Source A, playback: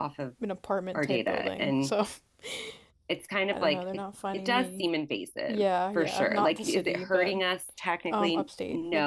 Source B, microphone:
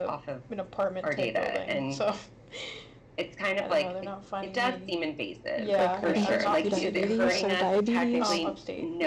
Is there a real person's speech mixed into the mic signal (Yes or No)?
Yes